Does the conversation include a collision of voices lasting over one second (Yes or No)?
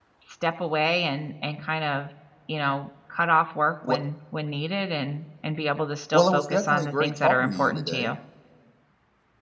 Yes